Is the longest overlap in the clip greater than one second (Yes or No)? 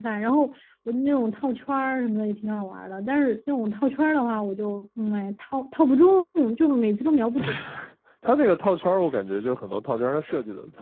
No